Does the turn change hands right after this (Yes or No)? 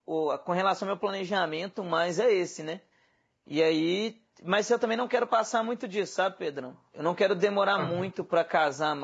No